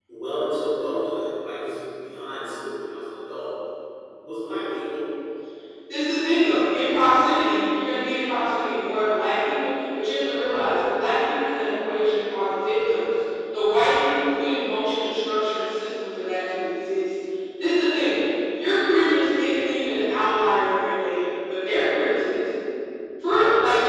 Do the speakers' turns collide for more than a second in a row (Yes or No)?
No